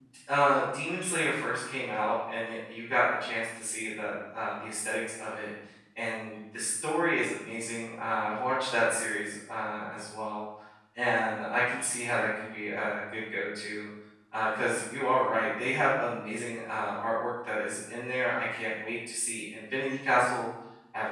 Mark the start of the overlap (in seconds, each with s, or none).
none